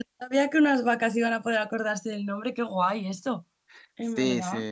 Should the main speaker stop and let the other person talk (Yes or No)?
Yes